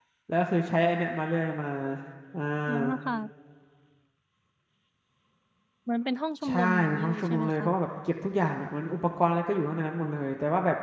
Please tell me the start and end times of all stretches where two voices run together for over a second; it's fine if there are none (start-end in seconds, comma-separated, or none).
6.5-7.7